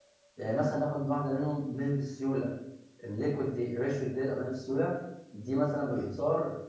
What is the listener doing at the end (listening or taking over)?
listening